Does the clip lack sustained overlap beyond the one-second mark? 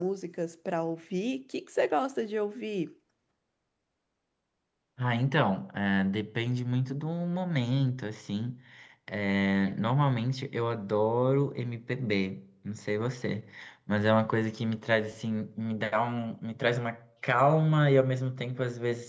Yes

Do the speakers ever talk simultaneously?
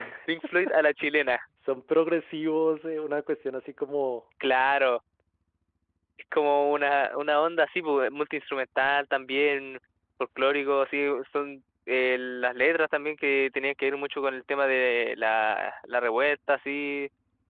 No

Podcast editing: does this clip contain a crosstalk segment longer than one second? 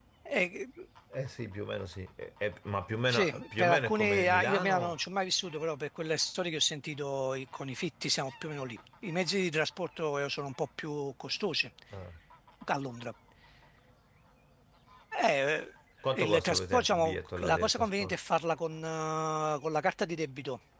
Yes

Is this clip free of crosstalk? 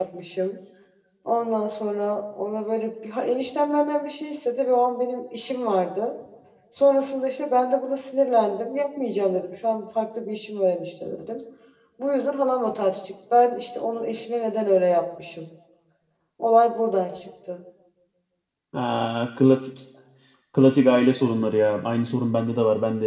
Yes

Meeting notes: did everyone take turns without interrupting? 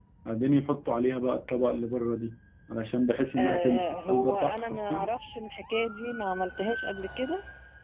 No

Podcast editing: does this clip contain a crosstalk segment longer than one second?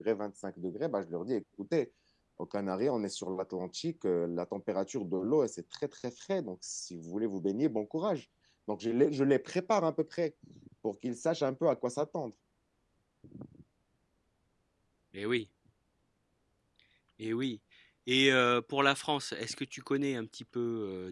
No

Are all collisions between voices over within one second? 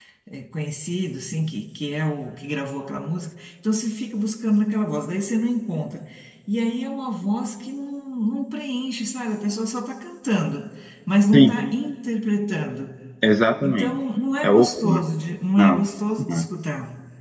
Yes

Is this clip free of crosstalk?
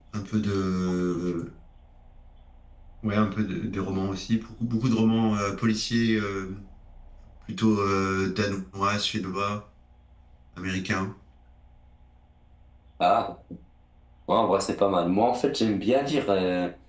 Yes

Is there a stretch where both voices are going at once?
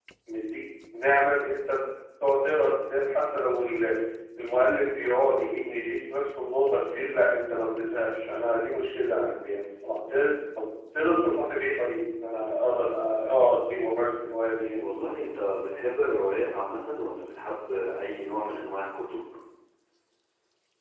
No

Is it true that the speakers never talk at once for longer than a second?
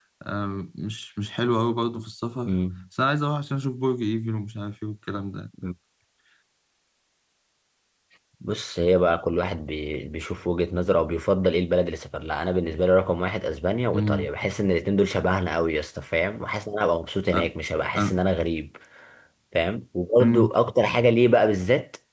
Yes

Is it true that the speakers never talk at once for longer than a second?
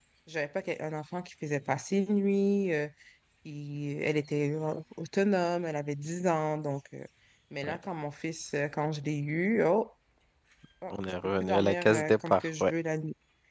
No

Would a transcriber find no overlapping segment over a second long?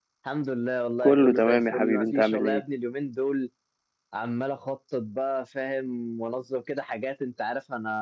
No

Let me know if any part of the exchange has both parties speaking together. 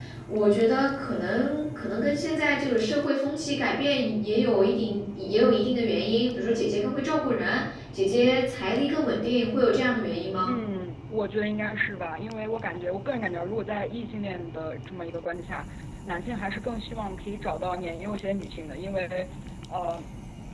No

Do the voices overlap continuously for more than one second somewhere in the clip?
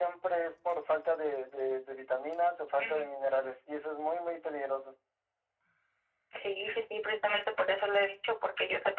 No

